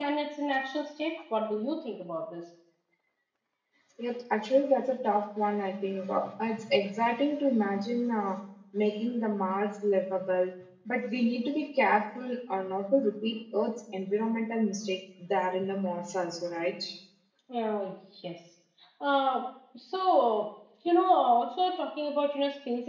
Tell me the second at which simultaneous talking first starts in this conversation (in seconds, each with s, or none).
none